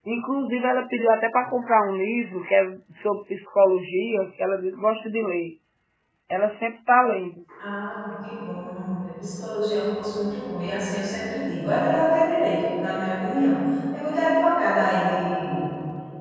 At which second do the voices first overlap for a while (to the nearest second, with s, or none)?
none